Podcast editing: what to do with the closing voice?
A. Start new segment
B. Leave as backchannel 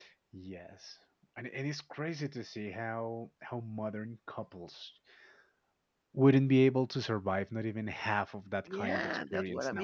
A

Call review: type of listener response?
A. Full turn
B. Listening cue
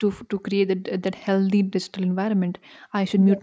B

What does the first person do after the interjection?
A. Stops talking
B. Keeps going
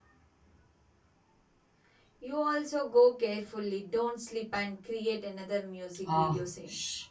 A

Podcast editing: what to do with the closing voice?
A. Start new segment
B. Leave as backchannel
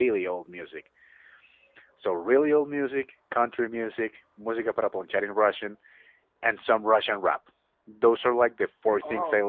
B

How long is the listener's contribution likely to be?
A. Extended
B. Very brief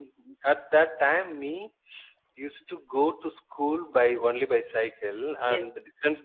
B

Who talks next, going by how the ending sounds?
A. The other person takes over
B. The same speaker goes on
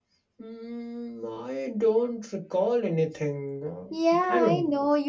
A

